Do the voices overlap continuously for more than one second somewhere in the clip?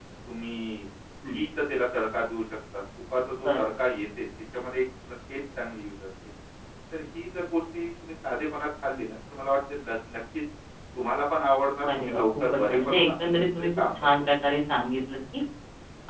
Yes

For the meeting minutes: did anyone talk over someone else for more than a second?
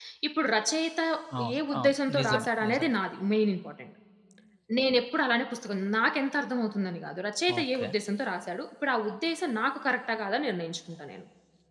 Yes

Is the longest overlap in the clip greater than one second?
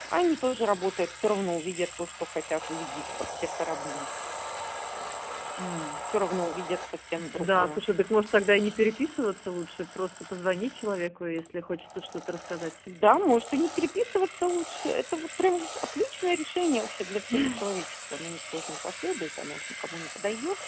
No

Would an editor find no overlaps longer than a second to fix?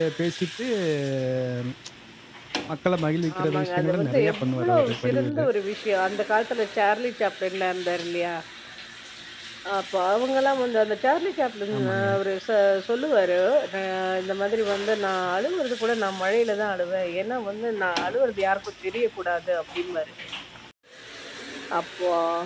No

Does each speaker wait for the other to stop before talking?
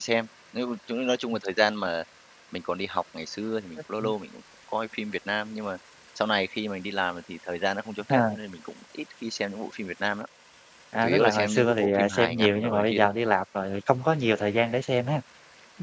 No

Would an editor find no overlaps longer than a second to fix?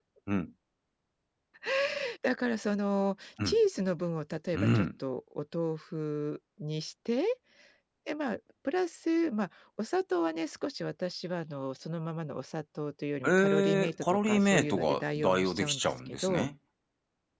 No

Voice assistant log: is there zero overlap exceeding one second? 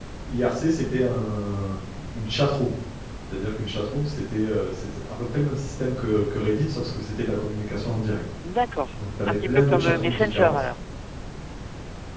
No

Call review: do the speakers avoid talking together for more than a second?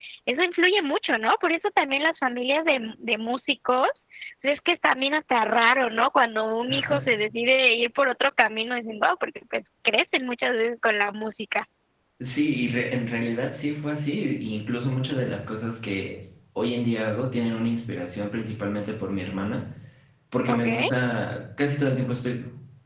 Yes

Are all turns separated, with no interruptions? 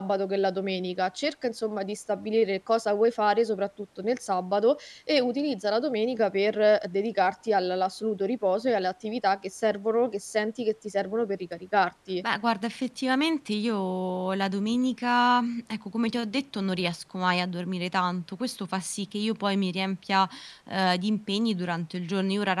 Yes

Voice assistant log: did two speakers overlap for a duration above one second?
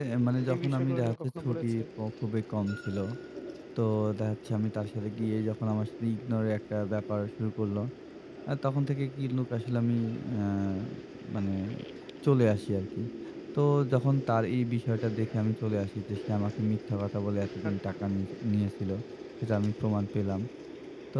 Yes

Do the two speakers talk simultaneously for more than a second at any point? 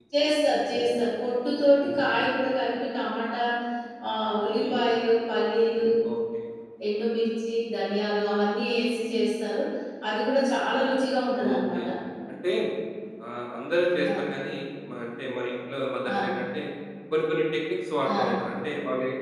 No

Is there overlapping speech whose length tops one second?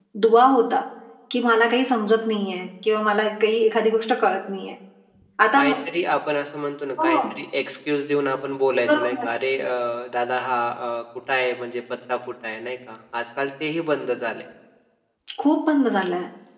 No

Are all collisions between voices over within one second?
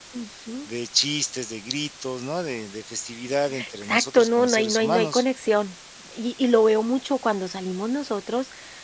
No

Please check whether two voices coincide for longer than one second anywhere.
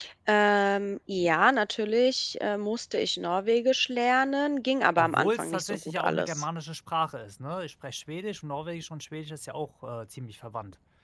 Yes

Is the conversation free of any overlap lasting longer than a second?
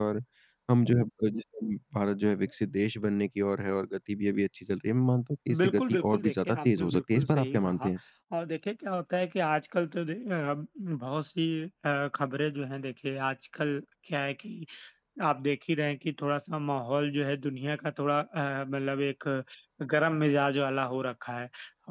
No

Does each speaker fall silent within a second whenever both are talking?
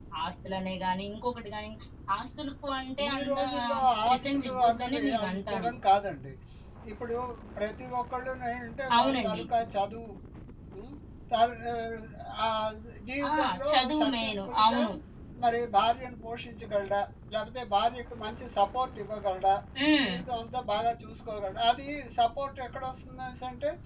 No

